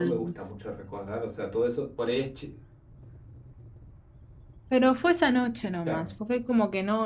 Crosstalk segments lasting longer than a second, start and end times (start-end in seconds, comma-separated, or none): none